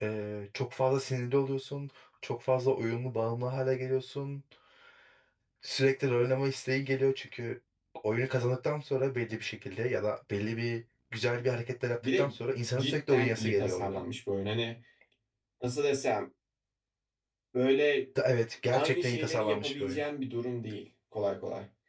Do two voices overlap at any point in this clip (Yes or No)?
Yes